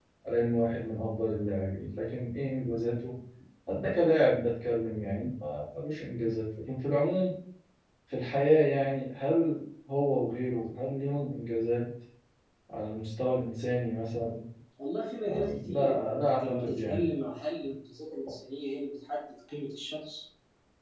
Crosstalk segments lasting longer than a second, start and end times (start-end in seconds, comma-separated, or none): 15.2-17.1